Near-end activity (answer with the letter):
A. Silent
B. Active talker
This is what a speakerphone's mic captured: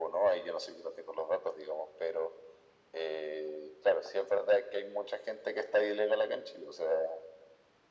A